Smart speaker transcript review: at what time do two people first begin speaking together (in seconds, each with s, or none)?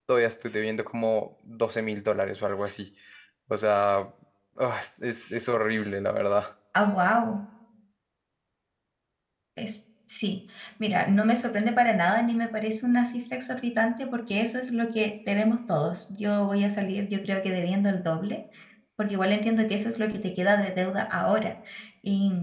none